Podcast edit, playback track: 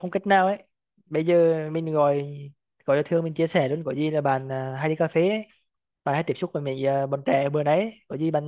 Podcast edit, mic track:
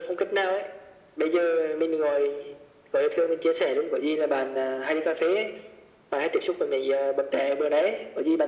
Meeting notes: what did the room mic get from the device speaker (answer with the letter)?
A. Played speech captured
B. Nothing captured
A